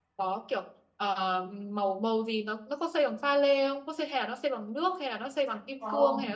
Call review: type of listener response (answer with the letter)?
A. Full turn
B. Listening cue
A